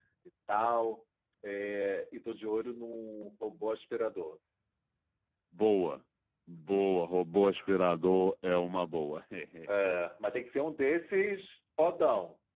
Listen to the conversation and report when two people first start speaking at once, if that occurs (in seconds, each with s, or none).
none